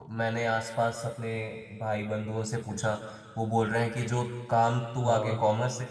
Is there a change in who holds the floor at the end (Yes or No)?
No